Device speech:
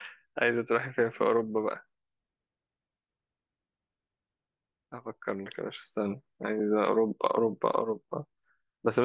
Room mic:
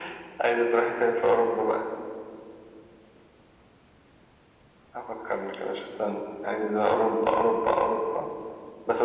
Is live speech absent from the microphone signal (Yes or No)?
Yes